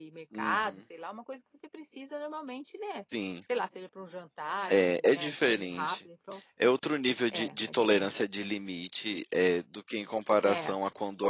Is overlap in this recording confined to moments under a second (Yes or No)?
No